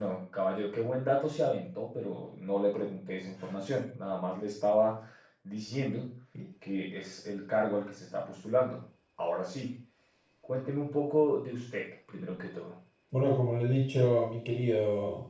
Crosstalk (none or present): none